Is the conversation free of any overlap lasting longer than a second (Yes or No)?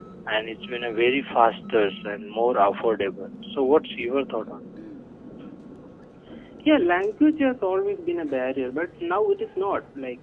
Yes